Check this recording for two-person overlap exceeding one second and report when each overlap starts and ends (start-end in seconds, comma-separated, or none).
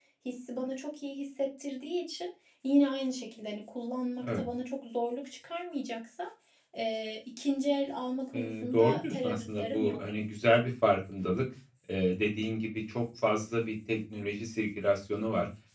8.3-10.0